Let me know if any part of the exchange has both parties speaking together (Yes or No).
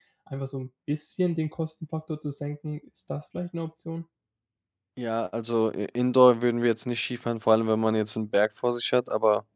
No